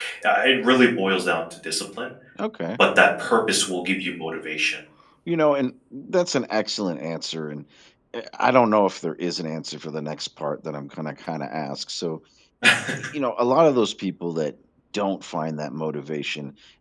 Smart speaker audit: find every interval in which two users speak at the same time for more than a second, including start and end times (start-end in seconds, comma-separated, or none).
none